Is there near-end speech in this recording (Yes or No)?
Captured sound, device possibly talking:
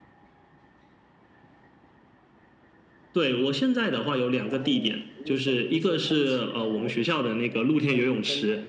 Yes